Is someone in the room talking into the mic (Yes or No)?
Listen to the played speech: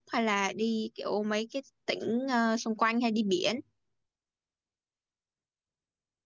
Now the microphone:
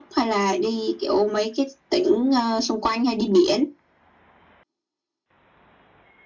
No